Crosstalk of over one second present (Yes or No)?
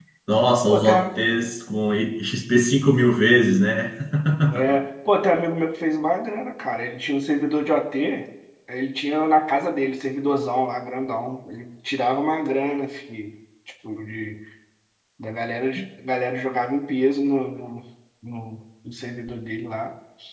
No